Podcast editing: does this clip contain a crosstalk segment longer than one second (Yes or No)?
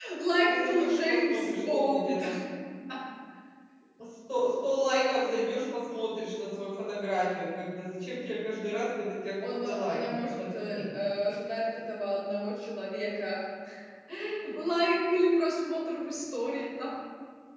Yes